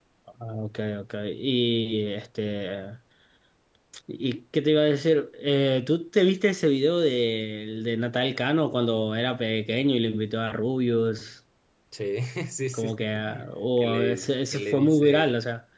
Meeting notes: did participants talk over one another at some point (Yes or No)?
Yes